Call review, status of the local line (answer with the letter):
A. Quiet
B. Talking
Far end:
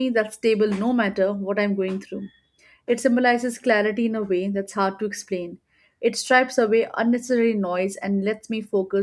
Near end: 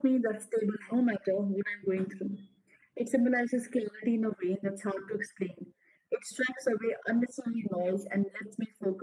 A